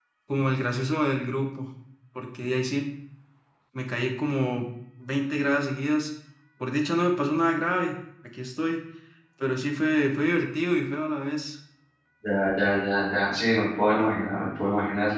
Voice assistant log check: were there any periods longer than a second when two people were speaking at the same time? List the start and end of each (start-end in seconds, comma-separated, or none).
none